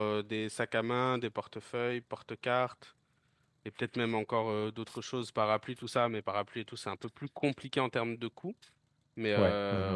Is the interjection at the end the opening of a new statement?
No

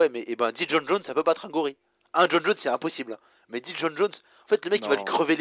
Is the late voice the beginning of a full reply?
No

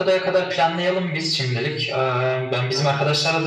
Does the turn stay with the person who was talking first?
Yes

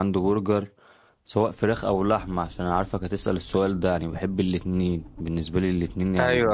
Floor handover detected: No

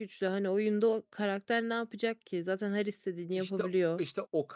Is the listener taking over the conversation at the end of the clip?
Yes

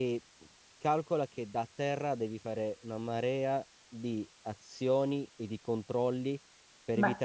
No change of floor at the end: No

